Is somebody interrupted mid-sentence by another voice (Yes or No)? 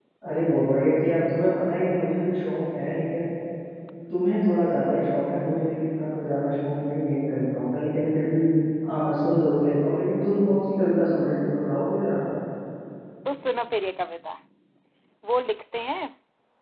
No